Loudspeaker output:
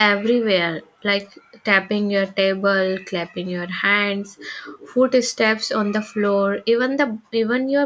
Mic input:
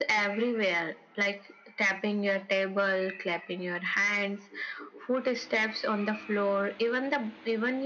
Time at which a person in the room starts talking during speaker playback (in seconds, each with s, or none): none